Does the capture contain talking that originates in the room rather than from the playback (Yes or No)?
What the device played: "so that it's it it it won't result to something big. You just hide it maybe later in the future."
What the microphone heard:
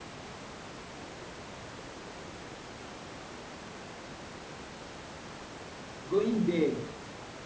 Yes